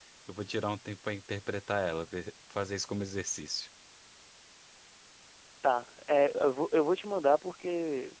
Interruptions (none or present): none